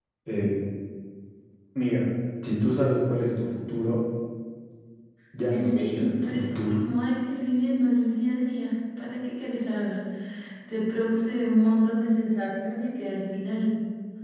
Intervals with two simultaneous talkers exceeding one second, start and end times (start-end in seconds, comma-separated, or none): 5.5-6.8